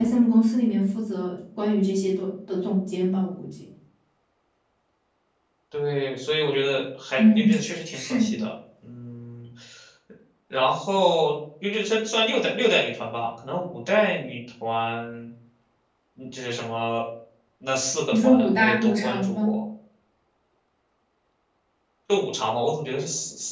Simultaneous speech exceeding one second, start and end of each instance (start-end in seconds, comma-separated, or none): 18.1-19.5